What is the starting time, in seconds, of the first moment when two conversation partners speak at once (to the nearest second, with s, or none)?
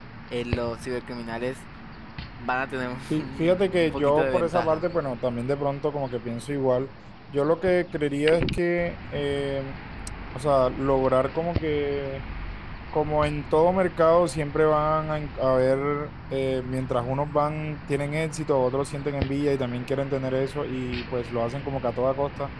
3 s